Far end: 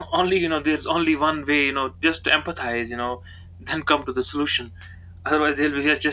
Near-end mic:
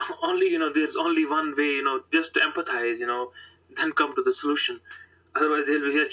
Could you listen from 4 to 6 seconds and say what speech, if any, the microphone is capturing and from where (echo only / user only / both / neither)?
echo only